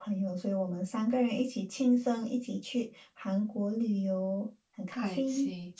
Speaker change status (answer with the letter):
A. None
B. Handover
B